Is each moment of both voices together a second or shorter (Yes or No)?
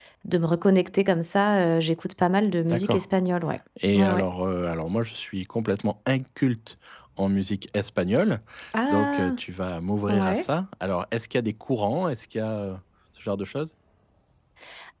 Yes